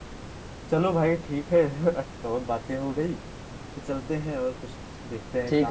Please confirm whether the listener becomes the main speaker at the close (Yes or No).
Yes